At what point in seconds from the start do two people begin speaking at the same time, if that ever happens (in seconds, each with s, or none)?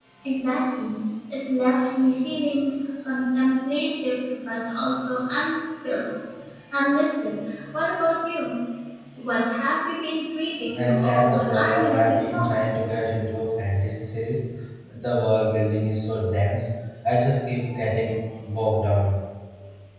10.7 s